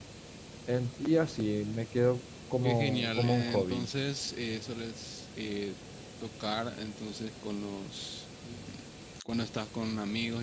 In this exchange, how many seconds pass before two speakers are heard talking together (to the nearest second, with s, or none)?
3 s